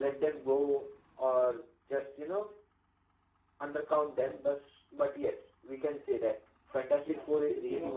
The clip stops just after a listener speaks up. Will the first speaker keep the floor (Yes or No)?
No